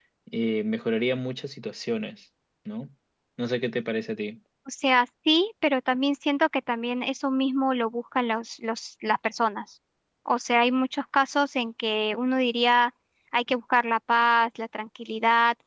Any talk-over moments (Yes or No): No